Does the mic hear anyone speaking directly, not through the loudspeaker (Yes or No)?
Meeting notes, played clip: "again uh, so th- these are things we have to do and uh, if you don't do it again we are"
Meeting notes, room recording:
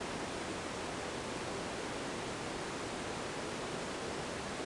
No